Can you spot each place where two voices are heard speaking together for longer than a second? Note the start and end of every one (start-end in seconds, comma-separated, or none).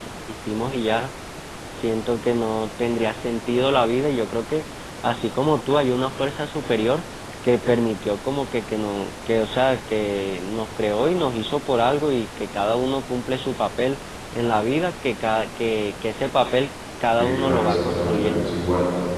17.2-18.5